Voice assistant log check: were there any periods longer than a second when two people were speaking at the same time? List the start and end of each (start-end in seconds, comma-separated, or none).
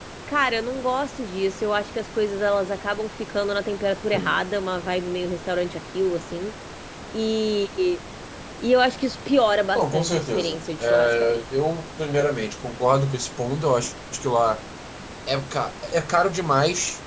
9.8-11.4